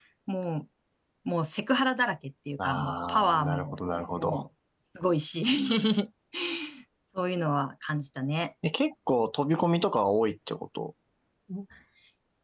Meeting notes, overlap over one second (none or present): present